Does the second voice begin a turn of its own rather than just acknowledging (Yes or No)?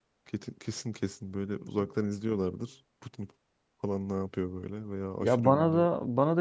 Yes